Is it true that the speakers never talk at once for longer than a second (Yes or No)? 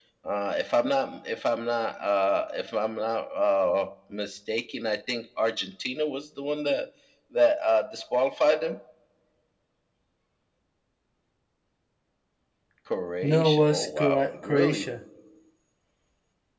No